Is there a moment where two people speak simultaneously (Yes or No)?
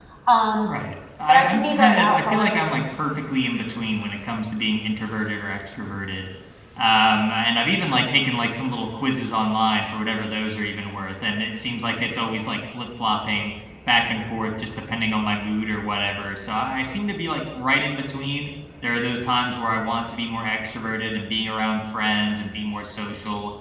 Yes